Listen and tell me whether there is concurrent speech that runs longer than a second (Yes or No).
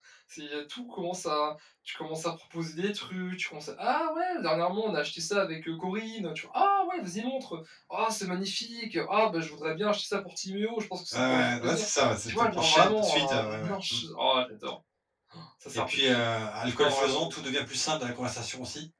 Yes